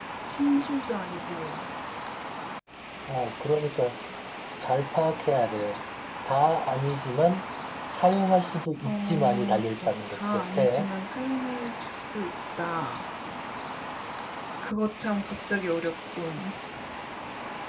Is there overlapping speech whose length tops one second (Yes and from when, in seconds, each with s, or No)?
Yes, from 8.8 s